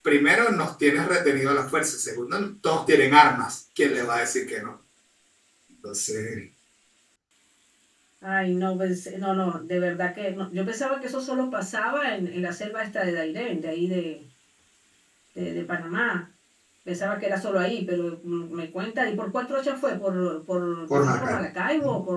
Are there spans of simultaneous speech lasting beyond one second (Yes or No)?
No